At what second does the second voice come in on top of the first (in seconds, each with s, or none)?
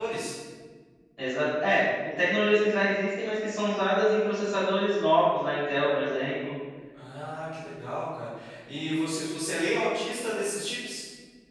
none